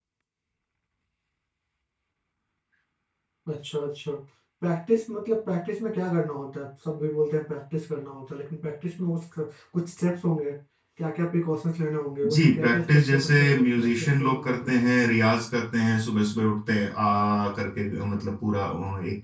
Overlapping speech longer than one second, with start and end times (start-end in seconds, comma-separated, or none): 12.3-14.8